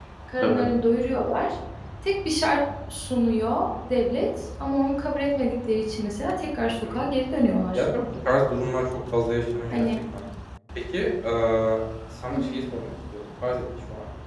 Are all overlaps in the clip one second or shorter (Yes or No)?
Yes